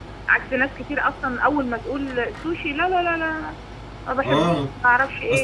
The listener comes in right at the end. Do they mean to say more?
Yes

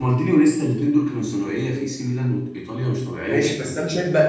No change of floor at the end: No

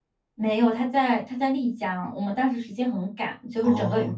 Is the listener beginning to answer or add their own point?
No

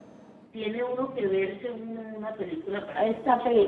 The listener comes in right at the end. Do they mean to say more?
Yes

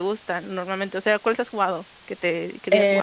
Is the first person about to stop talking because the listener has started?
Yes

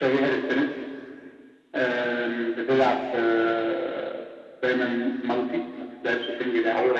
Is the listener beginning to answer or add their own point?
Yes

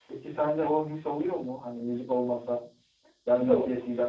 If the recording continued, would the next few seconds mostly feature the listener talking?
No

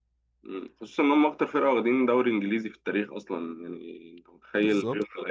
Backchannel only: Yes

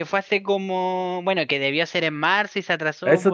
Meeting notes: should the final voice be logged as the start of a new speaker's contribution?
Yes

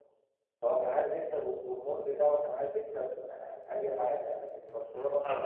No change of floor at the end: No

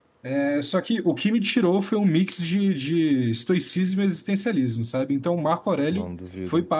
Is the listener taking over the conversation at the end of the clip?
No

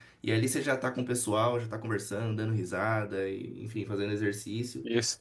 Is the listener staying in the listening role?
No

